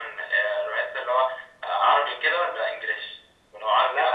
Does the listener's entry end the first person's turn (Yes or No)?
Yes